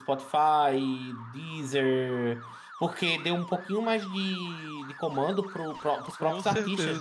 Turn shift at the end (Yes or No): No